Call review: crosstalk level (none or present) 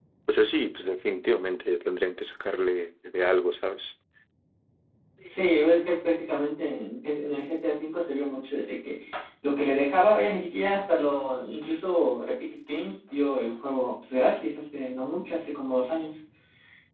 none